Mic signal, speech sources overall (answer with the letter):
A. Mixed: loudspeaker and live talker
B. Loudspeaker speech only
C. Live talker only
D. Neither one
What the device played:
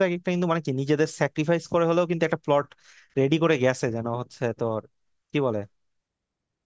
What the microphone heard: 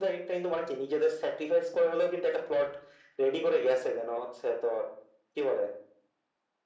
B